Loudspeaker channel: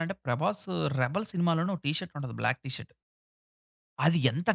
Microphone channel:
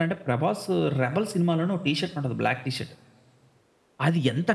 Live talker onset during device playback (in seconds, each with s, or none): none